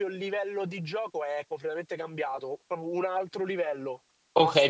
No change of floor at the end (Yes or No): No